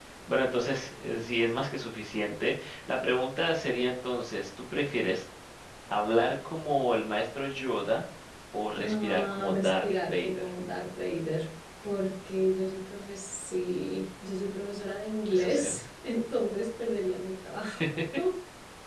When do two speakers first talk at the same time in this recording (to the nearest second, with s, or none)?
9 s